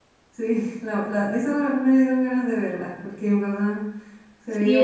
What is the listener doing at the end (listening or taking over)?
taking over